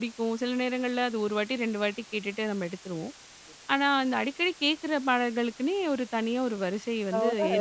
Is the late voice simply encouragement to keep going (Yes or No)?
No